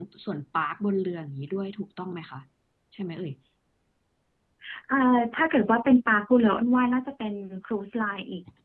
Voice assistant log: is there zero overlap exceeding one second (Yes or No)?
Yes